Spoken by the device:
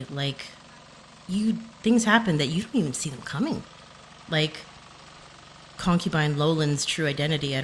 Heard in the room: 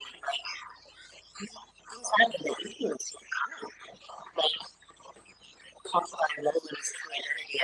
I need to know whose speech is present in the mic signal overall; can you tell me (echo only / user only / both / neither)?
echo only